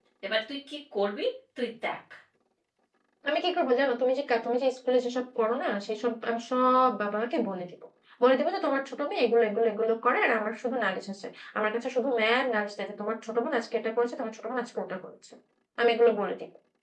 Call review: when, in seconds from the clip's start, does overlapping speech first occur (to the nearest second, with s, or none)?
none